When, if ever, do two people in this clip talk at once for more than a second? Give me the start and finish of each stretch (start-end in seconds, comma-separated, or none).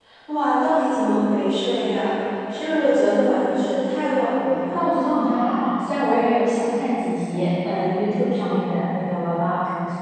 none